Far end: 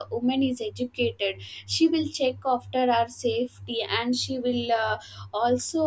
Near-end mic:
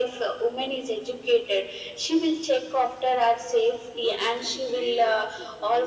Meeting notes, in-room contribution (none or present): present